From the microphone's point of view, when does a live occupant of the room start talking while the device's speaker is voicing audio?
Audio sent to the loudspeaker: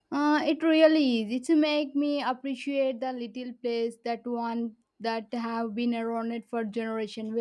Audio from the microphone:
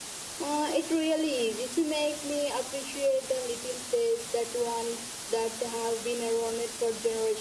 none

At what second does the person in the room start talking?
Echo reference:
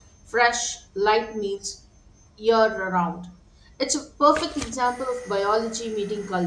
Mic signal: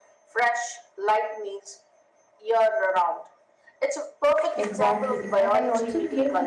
4.5 s

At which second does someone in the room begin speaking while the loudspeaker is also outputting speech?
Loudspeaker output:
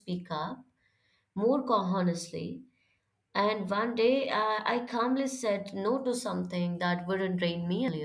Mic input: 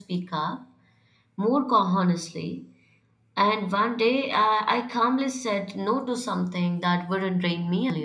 none

